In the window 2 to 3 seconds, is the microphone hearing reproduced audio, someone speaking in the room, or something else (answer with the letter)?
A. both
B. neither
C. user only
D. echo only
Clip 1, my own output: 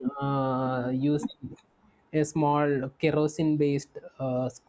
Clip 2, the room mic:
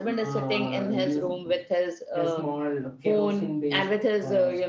A